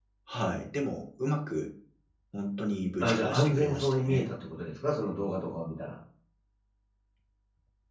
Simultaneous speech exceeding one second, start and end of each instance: 3.0-4.3

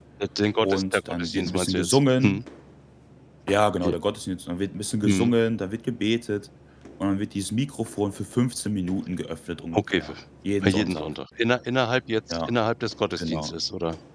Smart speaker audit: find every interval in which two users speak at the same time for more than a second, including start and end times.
0.6-2.4

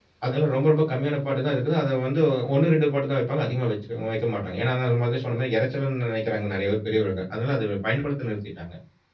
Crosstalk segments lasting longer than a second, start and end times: none

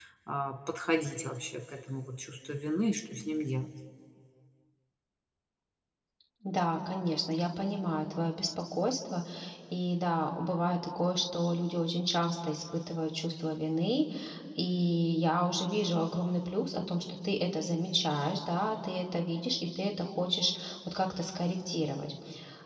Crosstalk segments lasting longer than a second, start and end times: none

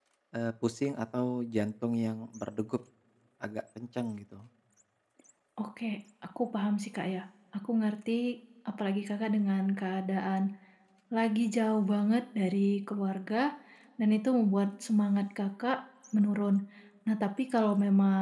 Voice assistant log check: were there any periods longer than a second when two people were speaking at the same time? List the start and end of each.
none

